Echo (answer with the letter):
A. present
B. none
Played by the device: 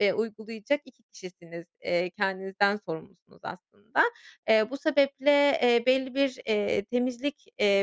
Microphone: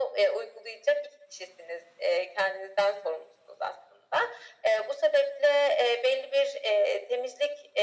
A